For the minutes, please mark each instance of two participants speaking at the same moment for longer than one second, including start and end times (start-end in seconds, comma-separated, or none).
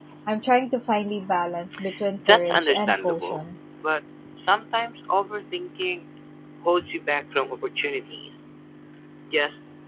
2.3-3.5